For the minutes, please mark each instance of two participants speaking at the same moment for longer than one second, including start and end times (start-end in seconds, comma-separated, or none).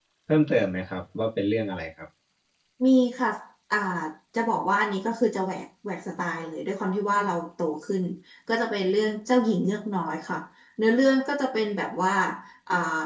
none